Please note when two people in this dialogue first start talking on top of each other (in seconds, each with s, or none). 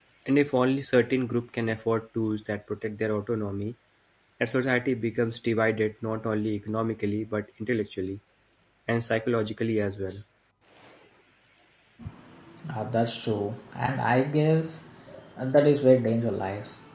none